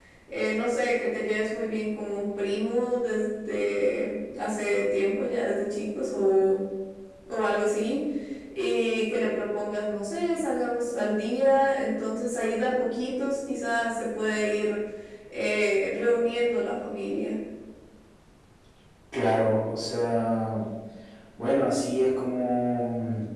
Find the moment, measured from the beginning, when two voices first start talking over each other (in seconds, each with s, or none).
none